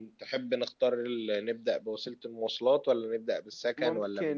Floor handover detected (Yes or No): Yes